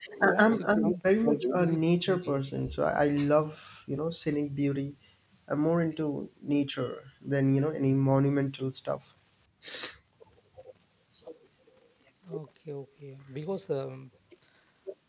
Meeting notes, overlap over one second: present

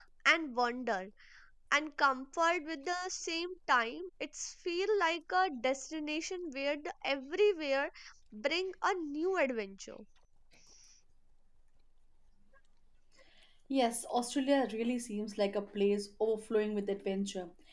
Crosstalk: none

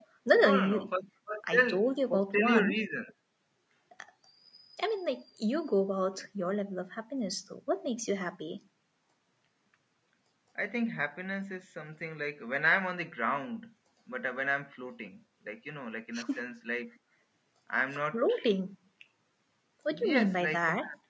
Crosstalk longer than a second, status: present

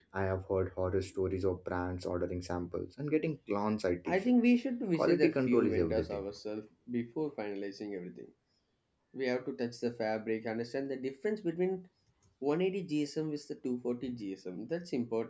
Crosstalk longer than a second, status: present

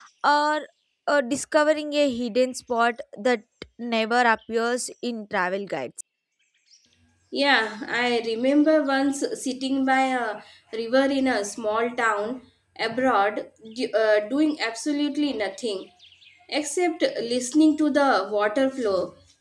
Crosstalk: none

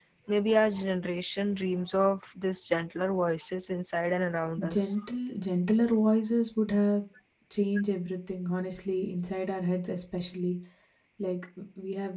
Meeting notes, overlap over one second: none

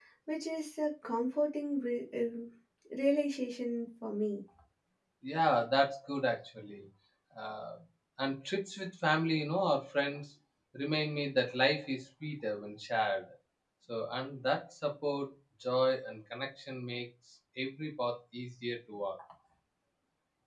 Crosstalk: none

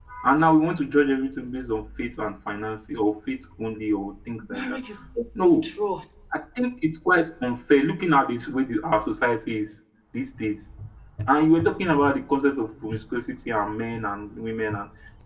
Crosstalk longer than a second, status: none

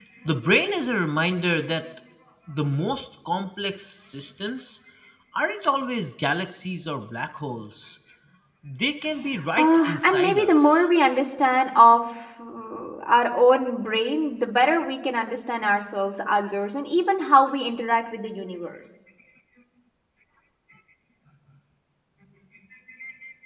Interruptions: present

